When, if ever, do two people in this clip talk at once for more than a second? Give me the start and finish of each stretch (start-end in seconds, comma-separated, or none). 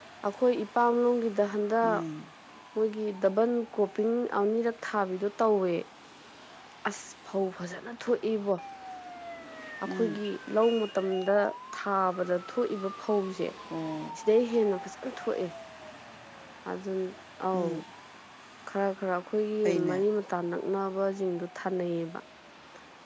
none